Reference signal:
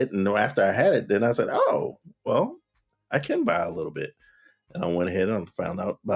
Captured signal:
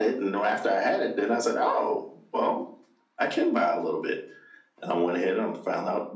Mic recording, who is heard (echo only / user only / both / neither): echo only